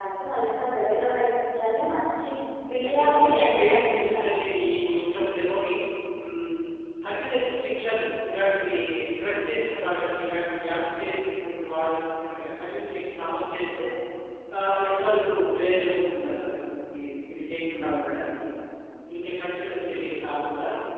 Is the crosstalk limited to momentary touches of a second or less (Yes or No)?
No